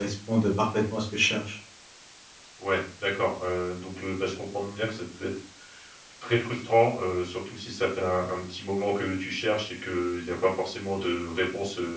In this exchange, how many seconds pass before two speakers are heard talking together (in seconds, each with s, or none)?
none